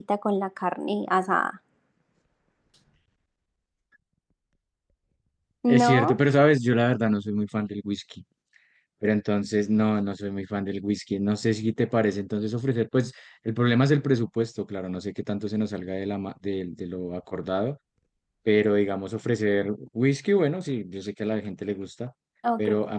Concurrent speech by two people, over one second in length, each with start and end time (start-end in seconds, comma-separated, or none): none